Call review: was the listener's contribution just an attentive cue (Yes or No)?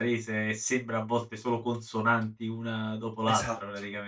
No